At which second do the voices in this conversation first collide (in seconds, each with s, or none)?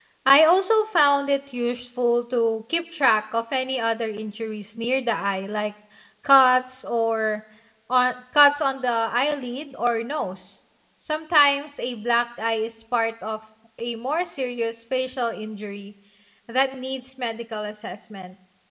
none